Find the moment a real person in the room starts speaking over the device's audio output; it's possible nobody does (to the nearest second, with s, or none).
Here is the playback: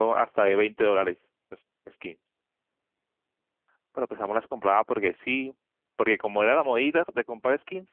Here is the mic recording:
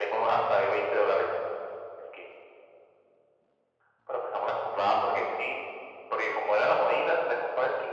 none